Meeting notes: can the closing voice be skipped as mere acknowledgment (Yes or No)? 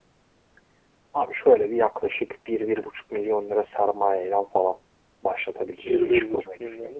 No